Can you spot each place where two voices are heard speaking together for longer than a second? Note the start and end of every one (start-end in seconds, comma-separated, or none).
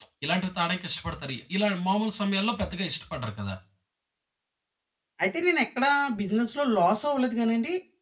none